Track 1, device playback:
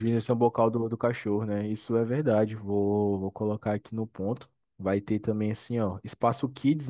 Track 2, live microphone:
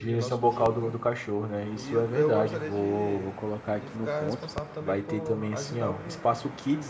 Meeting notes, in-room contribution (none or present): present